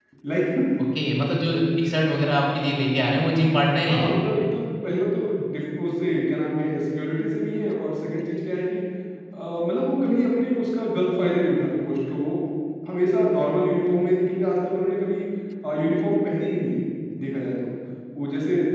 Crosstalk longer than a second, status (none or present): none